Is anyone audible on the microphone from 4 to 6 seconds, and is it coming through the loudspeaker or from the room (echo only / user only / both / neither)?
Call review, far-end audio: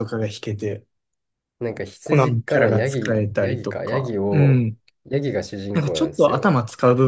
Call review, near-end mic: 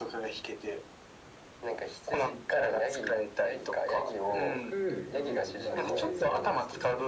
both